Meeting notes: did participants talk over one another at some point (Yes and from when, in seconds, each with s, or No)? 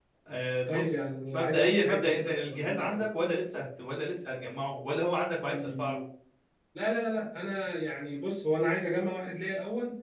Yes, from 0.7 s